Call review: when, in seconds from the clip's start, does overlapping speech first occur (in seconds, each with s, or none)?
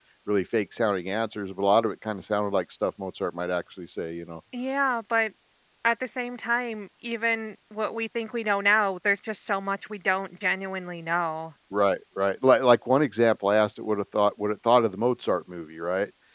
none